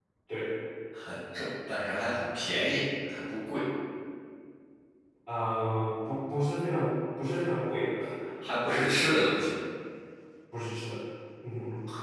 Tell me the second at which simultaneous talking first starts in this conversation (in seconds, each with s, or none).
none